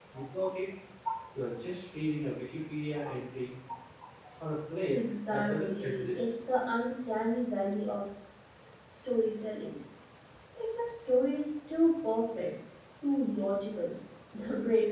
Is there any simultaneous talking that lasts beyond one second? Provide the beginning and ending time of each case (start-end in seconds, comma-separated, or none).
4.9-6.2